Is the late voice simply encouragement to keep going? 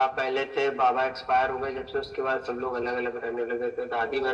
Yes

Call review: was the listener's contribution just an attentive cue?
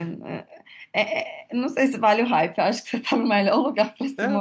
No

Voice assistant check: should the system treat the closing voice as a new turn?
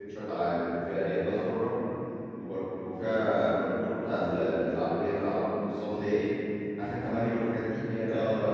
No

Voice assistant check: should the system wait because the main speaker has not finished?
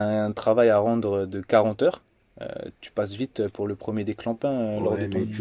No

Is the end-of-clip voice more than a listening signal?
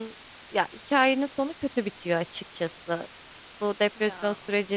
No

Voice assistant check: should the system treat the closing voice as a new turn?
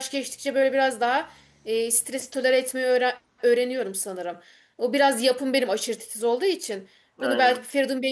No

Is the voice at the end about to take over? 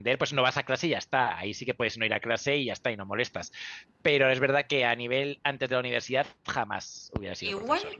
Yes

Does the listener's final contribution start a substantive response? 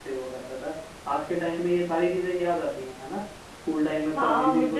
Yes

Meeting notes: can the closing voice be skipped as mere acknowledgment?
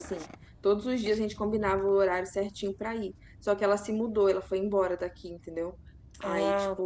Yes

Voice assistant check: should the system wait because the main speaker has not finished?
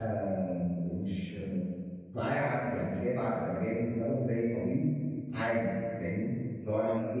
Yes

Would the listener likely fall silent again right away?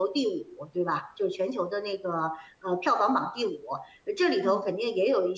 Yes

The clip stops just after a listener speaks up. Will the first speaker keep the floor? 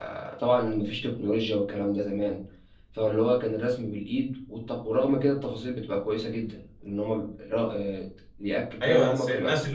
No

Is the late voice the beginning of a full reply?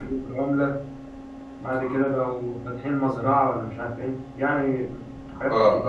Yes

